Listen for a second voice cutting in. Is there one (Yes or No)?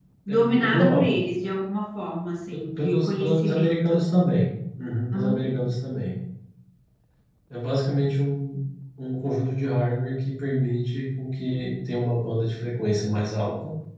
Yes